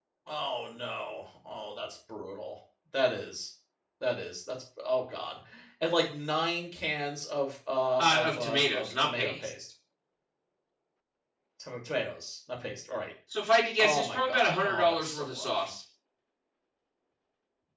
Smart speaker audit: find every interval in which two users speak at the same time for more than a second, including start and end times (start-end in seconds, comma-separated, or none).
8.0-9.5, 13.8-15.7